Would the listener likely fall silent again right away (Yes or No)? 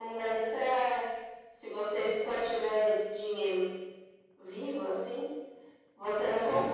Yes